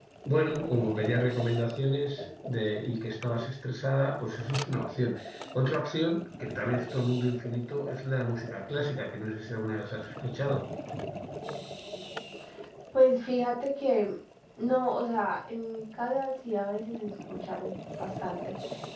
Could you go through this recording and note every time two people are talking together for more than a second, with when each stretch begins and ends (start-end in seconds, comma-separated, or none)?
none